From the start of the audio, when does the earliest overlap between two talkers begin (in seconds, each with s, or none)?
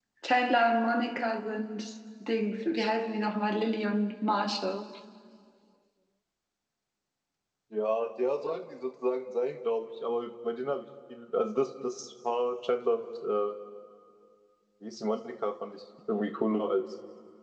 none